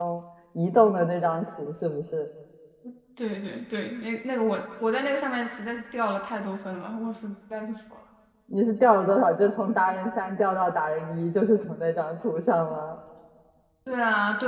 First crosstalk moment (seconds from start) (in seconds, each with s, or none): none